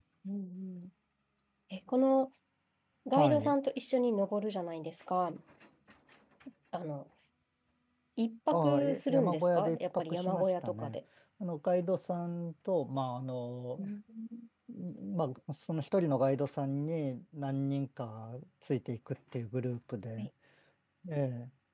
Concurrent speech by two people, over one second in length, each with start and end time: 8.5-11.0

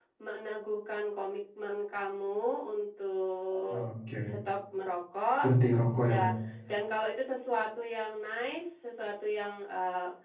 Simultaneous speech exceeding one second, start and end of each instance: none

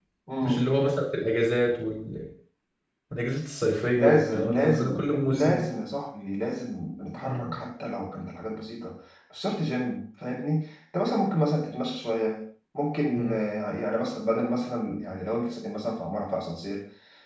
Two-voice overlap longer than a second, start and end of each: 3.9-5.6

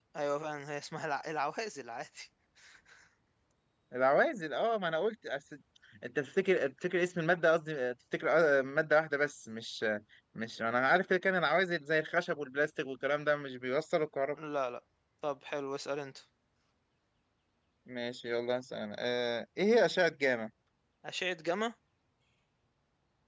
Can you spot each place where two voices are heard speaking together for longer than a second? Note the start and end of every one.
none

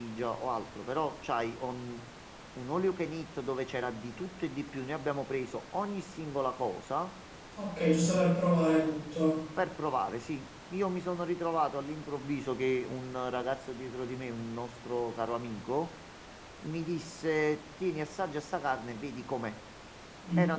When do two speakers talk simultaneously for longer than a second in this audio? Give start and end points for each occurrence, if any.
none

